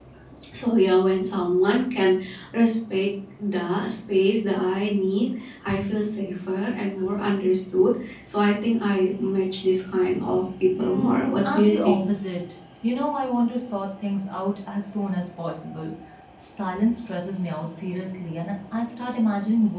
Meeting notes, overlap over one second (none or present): present